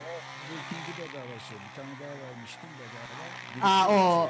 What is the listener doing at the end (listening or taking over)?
taking over